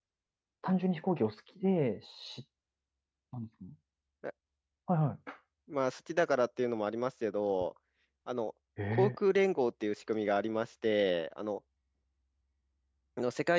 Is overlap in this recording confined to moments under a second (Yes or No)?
Yes